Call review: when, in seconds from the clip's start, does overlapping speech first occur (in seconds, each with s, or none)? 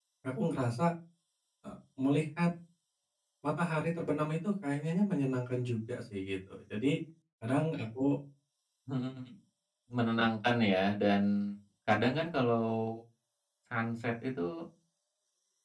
none